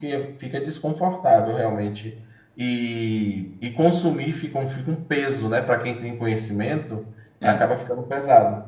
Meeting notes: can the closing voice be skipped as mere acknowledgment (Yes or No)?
Yes